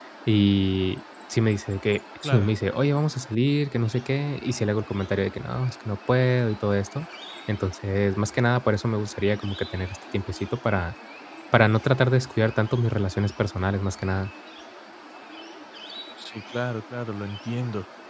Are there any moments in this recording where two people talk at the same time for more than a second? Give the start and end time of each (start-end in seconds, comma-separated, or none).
none